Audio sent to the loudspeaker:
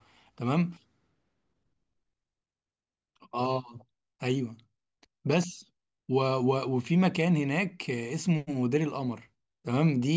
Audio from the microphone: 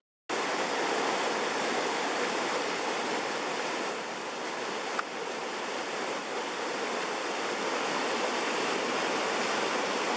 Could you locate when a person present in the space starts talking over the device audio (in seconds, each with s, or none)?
none